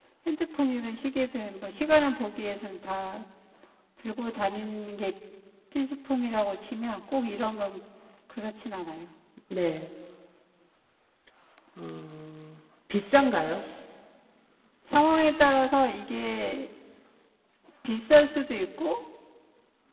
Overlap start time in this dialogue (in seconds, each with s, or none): none